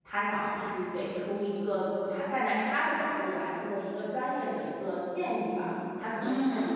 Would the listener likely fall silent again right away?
Yes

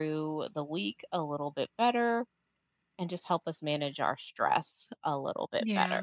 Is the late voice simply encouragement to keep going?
No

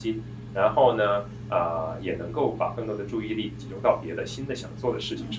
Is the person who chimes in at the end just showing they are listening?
No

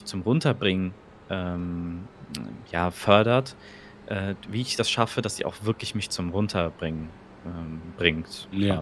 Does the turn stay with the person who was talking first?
No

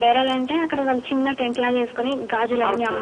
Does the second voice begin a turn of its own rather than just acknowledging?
No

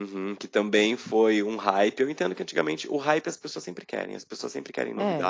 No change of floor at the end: Yes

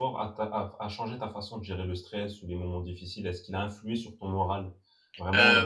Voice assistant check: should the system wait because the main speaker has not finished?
No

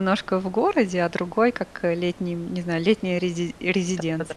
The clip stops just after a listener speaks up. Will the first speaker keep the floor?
No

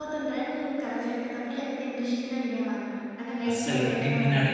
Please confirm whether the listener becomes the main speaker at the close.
Yes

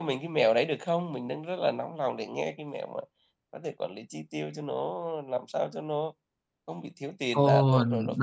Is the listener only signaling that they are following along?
No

